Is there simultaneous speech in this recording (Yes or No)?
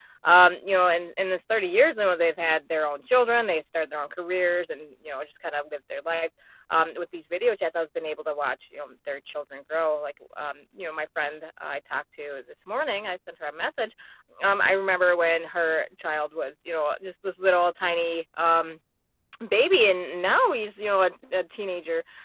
No